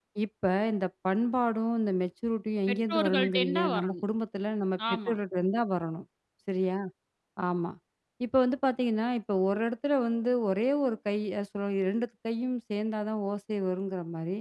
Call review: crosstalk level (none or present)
present